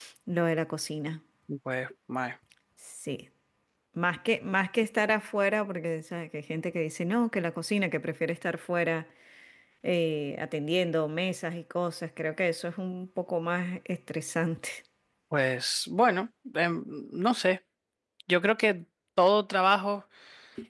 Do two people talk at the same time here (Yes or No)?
No